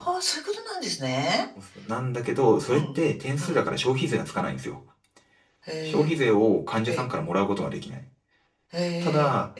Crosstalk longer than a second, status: none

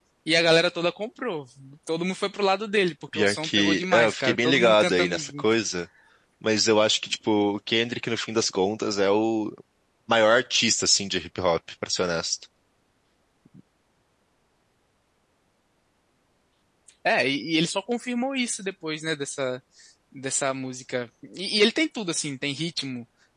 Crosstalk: present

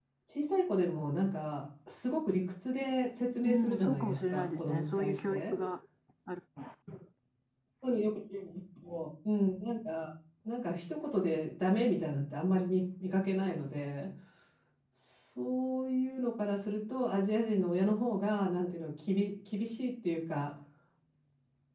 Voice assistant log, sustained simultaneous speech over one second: present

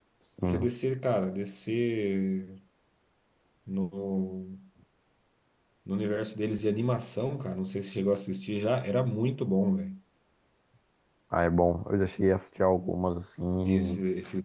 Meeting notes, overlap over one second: none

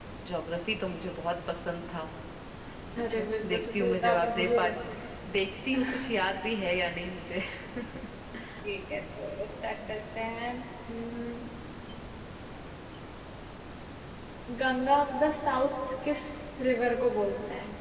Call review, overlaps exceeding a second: present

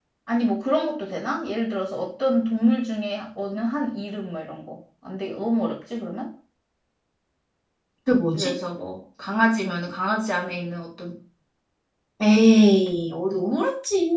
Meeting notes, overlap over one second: none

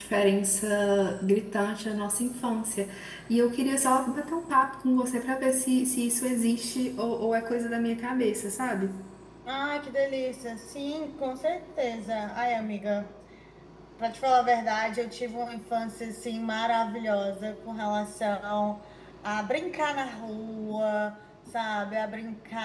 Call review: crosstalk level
none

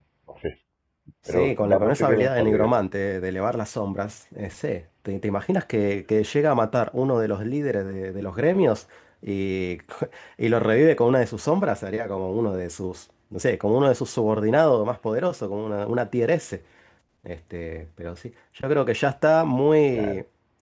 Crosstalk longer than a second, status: present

